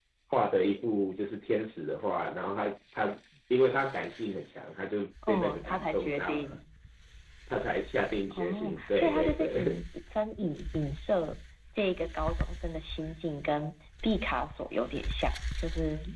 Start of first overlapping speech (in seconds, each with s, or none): 5.3 s